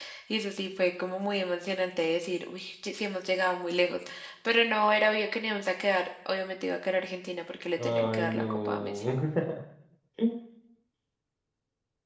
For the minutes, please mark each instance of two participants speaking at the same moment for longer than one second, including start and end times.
7.8-9.0

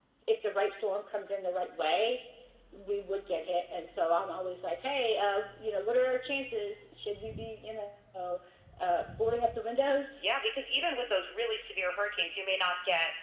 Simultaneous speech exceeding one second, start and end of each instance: none

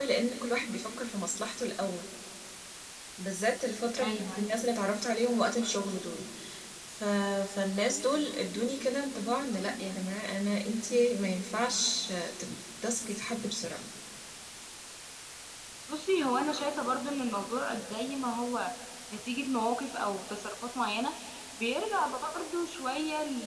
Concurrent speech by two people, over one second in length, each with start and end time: none

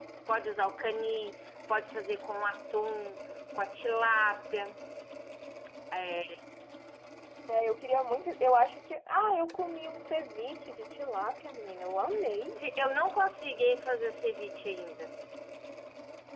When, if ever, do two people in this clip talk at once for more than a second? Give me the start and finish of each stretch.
none

